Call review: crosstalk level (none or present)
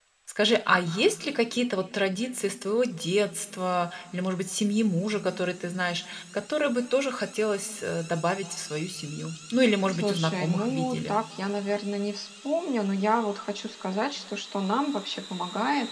present